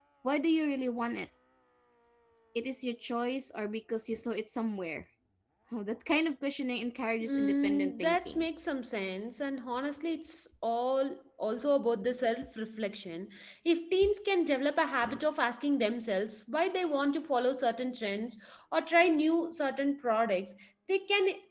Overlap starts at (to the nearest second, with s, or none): 7 s